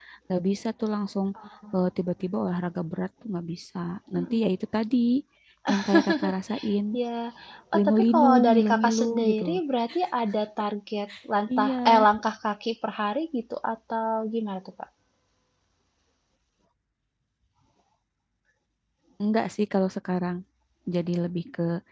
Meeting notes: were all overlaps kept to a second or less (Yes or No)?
No